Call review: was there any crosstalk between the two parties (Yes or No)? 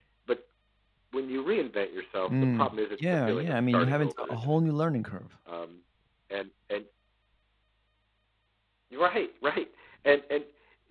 Yes